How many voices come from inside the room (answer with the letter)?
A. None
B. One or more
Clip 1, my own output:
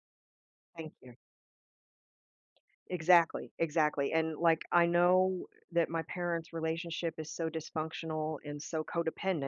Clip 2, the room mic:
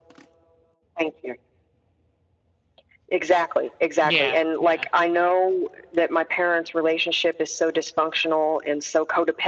B